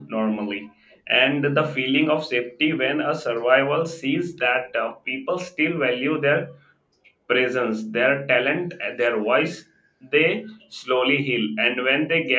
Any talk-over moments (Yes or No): No